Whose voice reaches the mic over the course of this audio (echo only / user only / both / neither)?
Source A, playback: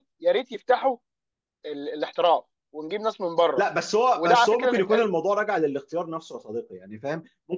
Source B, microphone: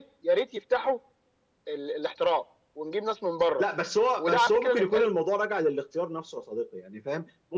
echo only